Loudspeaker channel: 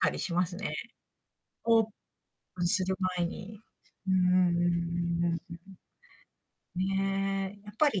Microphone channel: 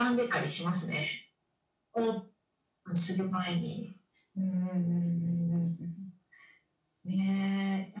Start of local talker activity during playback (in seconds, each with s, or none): none